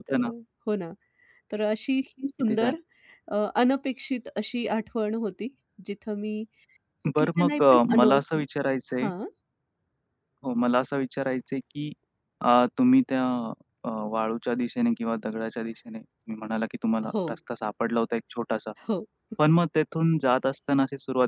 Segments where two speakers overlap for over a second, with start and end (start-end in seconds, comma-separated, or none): 7.2-8.4